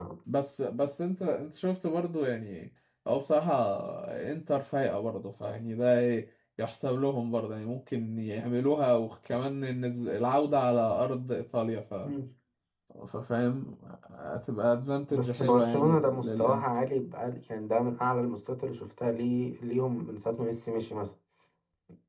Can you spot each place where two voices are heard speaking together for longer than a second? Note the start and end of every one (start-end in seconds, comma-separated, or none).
15.1-16.6